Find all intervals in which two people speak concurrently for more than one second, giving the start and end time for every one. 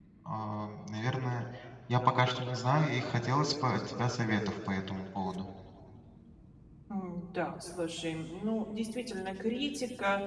none

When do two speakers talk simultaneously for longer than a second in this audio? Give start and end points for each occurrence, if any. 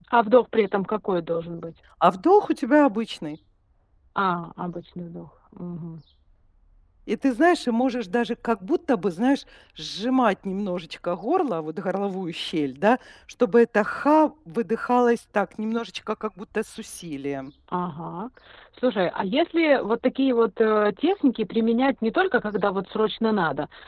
none

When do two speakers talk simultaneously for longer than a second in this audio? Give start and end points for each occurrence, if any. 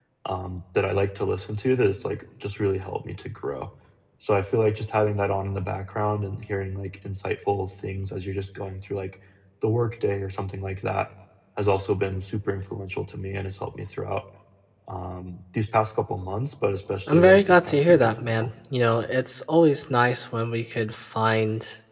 17.1-18.5

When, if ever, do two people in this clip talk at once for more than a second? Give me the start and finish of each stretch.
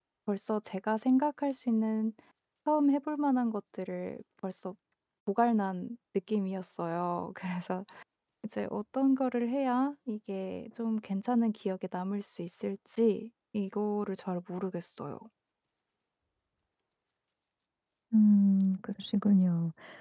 none

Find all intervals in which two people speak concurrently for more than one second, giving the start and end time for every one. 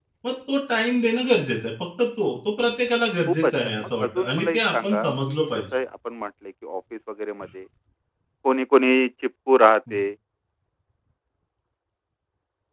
3.3-5.7

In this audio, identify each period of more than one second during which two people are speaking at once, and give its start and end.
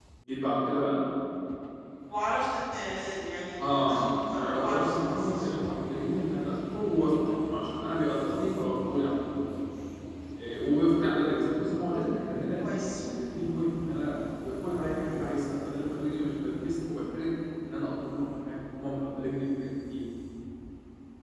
3.7-5.5

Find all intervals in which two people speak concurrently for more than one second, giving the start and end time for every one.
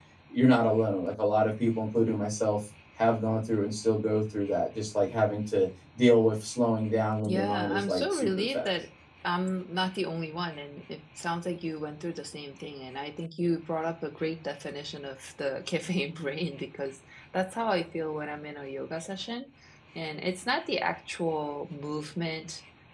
7.2-8.8

